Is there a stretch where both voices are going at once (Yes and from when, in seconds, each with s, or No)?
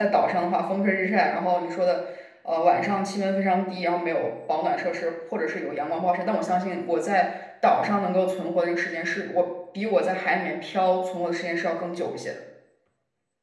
No